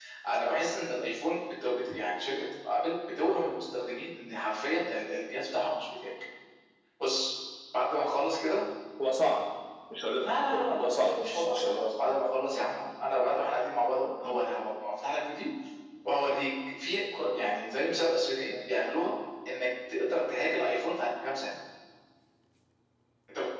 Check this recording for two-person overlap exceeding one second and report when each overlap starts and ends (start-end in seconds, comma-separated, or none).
10.2-12.0